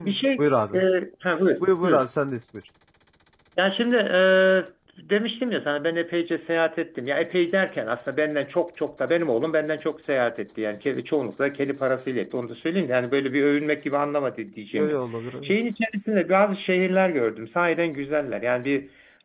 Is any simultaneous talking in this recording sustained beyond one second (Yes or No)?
No